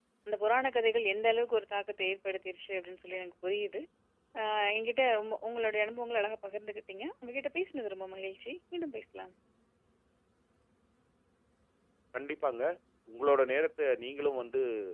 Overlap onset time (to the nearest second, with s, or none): none